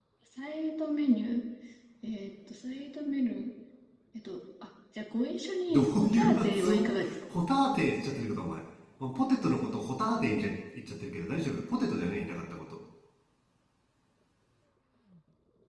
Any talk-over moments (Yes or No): Yes